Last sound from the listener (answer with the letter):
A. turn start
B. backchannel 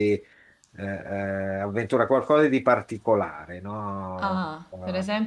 A